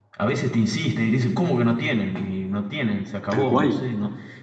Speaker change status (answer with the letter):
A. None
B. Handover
A